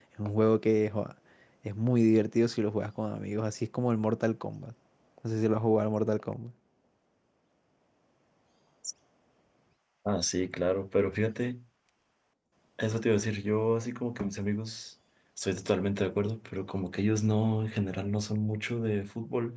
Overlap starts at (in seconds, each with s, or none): none